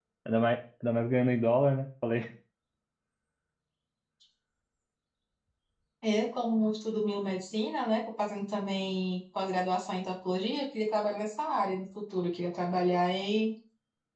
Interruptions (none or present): none